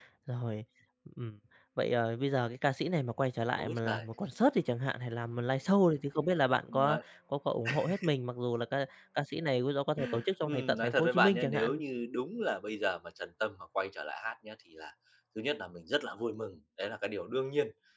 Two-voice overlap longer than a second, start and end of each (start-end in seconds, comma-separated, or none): 10.5-11.8